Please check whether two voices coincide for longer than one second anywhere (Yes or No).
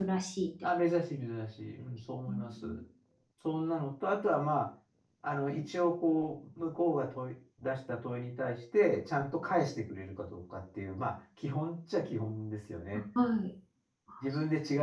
No